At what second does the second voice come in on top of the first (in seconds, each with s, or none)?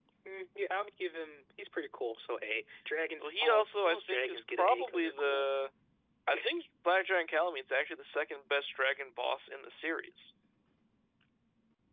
3.2 s